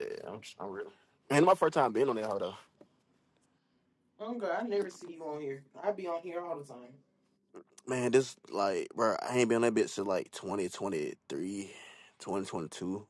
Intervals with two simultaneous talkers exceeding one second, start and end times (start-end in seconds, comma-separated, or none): none